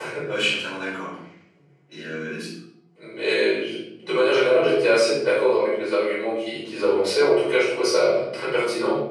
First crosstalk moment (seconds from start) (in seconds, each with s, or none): none